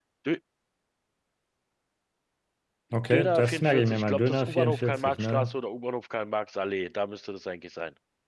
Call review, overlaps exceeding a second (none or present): present